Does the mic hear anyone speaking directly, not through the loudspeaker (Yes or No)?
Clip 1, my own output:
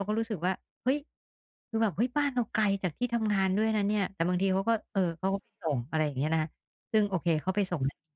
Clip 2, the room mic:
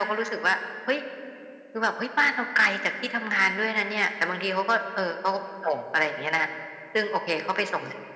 No